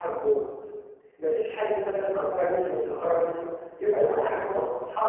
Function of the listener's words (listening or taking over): taking over